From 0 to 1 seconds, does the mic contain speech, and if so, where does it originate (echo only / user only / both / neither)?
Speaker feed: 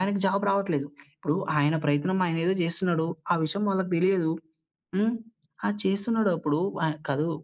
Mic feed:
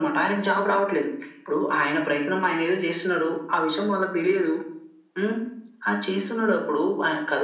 echo only